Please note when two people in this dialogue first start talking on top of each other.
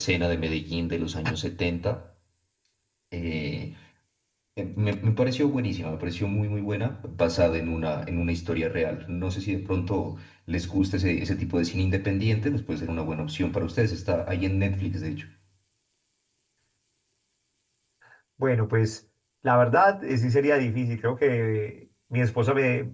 none

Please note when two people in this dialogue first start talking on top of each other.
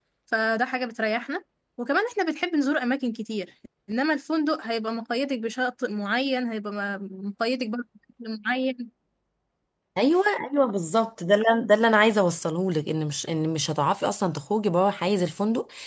none

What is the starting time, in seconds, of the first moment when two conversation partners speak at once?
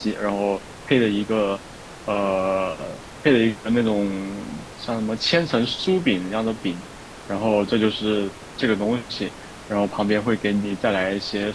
none

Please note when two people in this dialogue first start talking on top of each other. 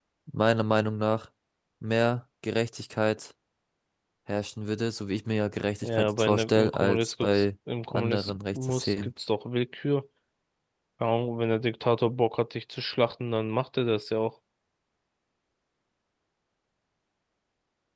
5.8 s

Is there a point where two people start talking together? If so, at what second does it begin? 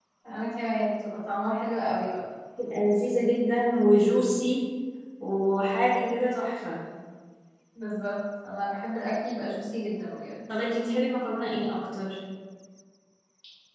none

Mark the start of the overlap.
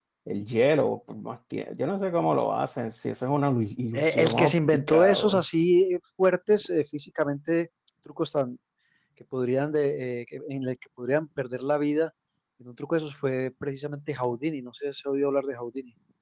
3.9 s

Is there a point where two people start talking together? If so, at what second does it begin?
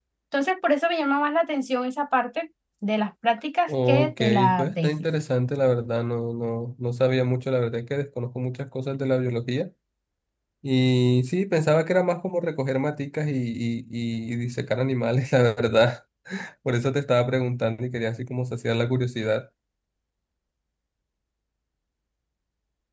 3.7 s

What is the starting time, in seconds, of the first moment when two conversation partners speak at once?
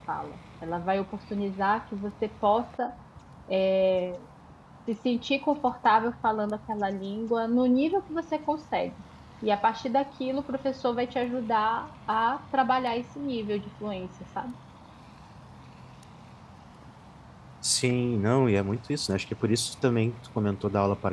none

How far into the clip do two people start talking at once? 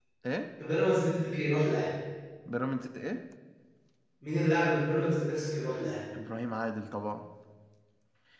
none

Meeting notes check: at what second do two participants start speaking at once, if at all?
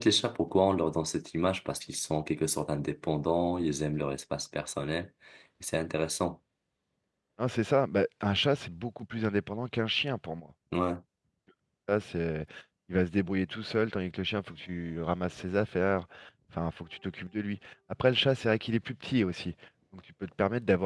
none

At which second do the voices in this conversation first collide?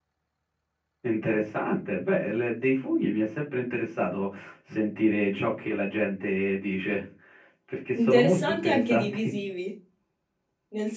8.0 s

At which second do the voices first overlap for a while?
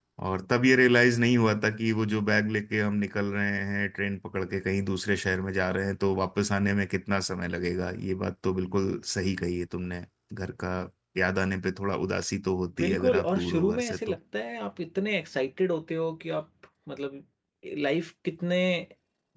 12.8 s

